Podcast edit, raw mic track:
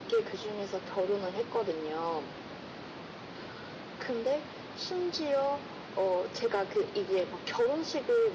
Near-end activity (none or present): none